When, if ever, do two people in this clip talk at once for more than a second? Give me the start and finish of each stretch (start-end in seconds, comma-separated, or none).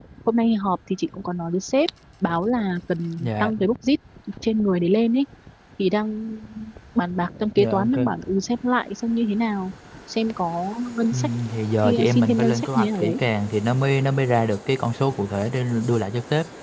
11.8-13.2